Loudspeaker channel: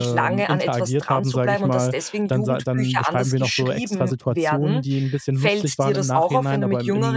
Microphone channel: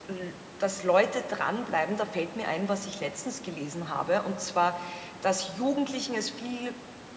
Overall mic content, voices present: user only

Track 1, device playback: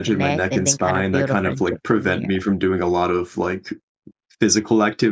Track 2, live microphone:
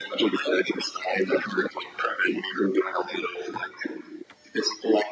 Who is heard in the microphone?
echo only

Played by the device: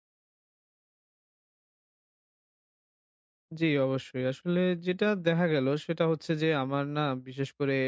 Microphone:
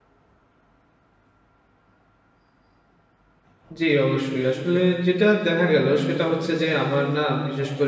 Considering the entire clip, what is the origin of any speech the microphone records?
echo only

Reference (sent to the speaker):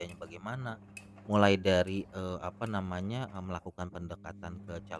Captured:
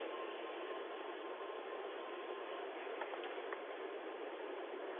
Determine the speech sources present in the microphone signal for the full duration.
neither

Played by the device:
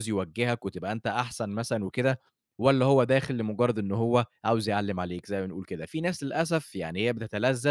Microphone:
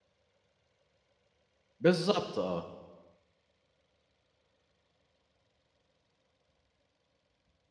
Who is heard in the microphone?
user only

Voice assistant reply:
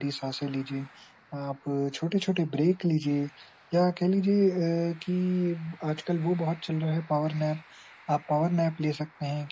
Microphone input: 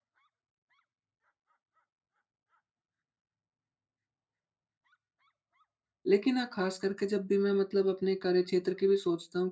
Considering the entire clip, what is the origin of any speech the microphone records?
user only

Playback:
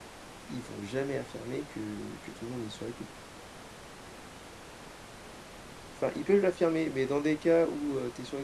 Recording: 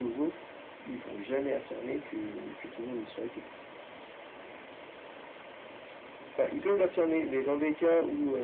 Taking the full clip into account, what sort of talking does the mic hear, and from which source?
echo only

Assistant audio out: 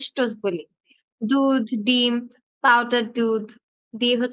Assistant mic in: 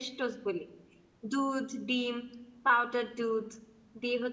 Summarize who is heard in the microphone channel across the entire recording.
echo only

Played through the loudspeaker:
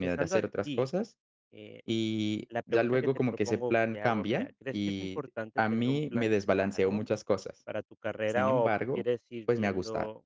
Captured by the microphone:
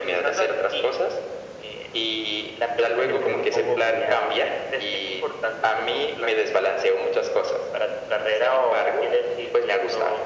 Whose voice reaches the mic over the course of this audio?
both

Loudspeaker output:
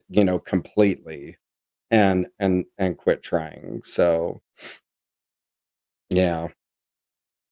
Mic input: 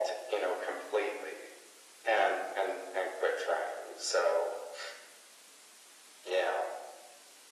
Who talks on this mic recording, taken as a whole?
echo only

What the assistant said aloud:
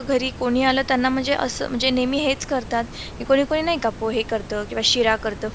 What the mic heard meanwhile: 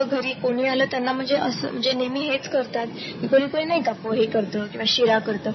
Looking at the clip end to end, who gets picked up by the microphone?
echo only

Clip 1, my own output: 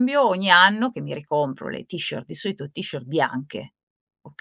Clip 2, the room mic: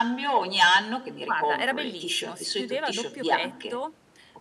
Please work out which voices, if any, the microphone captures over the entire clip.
both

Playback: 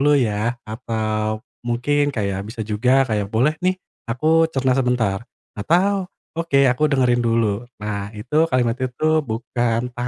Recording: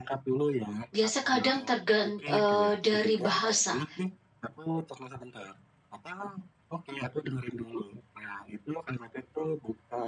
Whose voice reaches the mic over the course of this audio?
both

